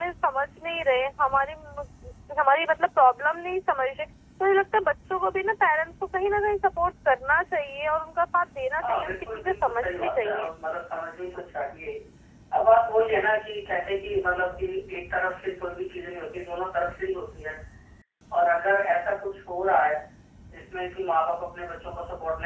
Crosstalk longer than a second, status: present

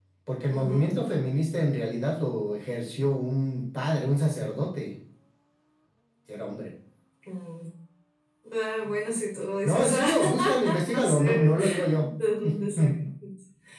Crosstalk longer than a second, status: present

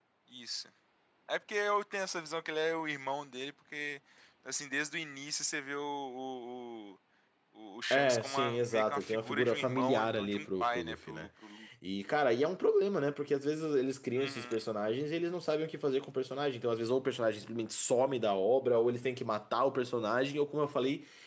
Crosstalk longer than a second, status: present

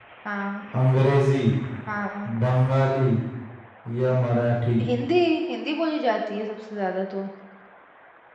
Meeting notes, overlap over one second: none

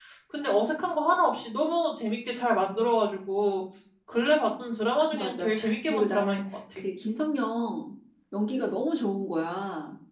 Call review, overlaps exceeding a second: present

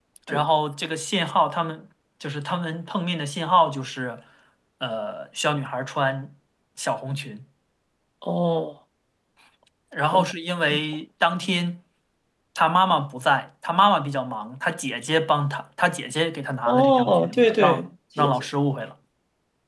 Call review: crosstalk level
present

